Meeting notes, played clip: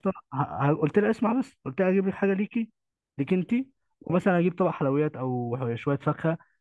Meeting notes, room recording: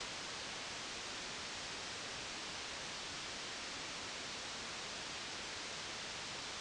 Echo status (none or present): none